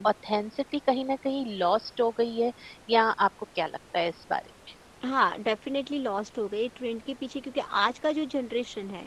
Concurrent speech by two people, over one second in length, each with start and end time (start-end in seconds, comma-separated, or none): none